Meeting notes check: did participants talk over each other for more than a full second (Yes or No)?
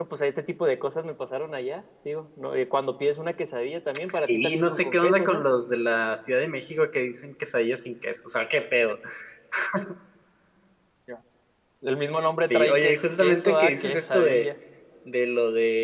Yes